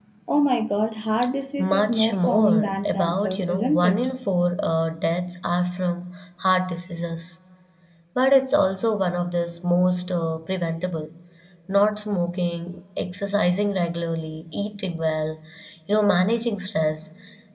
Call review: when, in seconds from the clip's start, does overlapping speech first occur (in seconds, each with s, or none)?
1.6 s